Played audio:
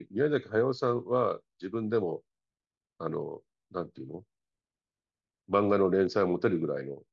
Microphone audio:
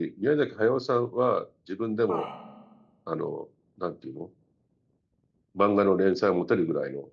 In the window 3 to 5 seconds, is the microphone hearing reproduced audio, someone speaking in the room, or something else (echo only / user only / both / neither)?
echo only